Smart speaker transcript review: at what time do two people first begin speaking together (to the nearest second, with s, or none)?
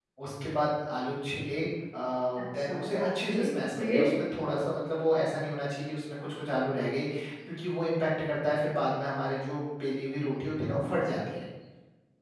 3 s